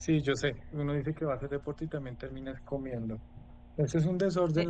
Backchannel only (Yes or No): Yes